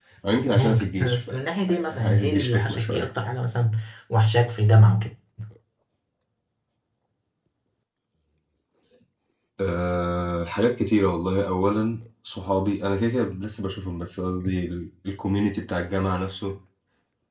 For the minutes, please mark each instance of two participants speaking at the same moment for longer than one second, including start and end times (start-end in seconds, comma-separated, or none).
0.5-3.1